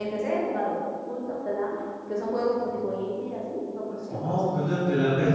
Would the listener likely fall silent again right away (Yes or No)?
No